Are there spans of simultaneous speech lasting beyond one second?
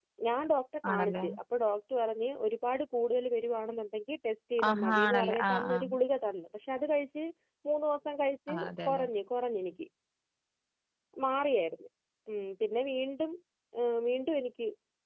Yes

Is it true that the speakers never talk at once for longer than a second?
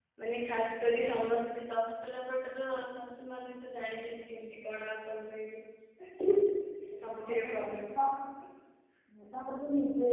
Yes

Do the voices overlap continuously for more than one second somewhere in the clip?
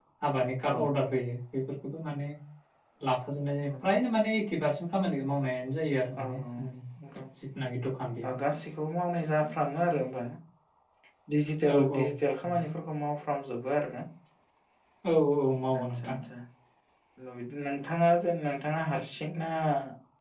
No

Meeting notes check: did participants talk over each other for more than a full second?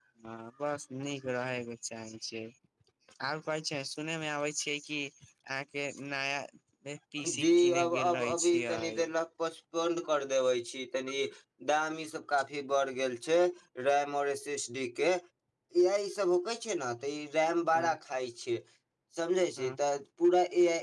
Yes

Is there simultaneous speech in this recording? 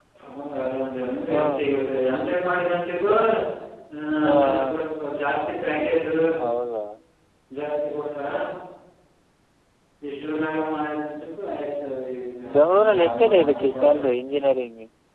Yes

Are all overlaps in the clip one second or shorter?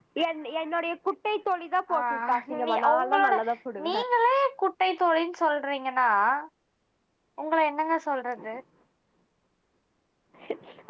No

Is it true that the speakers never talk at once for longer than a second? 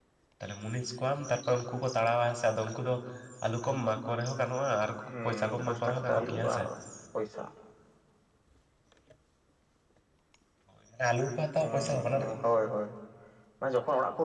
No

